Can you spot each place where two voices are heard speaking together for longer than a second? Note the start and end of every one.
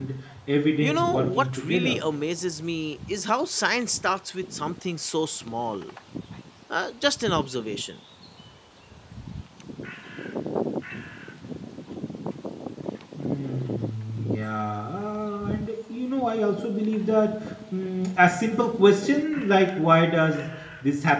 0.8-2.0

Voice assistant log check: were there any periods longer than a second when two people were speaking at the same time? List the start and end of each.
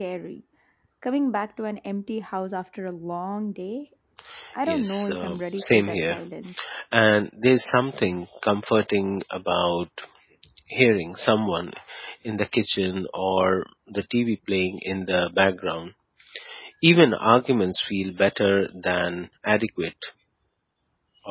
4.7-6.2

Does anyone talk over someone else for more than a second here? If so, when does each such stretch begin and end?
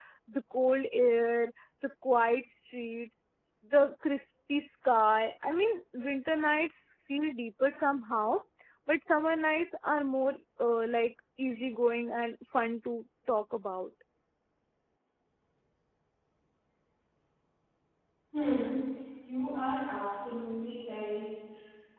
none

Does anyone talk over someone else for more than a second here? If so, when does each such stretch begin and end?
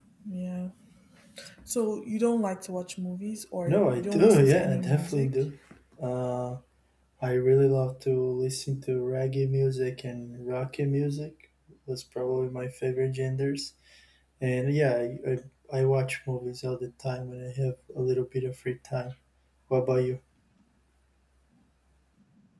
3.6-5.3

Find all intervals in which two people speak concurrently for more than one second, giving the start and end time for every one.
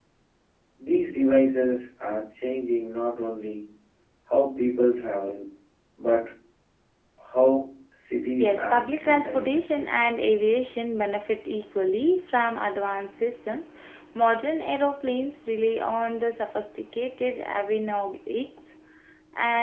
8.4-9.6

